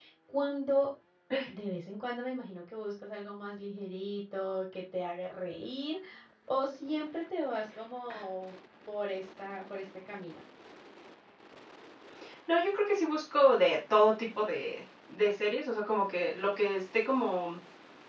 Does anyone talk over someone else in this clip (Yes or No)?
No